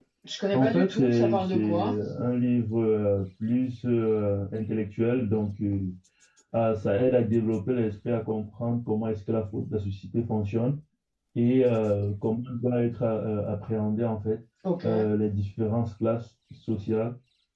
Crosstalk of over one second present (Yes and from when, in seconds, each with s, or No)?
Yes, from 0.5 s